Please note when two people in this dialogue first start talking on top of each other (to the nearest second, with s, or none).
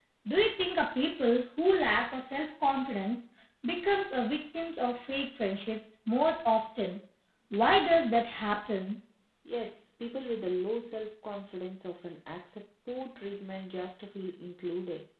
none